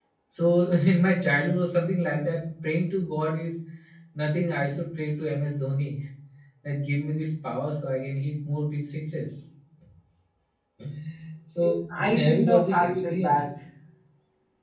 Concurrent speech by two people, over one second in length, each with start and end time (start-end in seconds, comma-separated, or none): 11.6-13.5